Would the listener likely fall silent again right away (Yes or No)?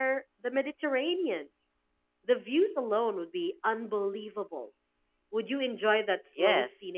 No